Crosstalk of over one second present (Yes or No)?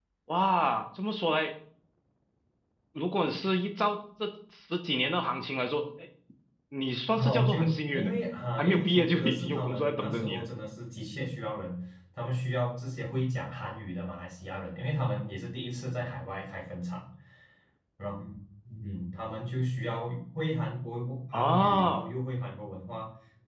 Yes